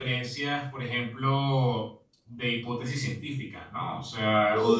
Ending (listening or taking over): listening